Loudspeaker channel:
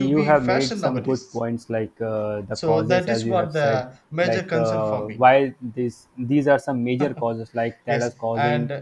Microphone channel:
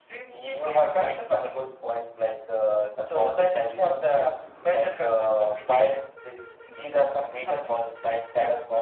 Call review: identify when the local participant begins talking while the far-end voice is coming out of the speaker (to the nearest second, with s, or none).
none